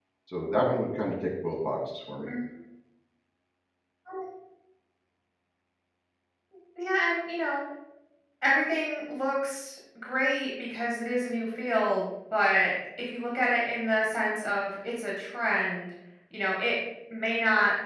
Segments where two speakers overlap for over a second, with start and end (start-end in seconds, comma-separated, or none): none